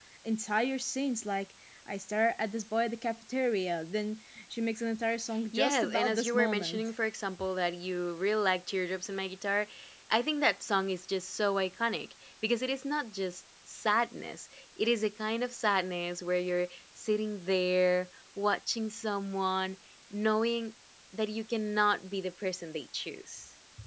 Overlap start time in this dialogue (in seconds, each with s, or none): 5.5 s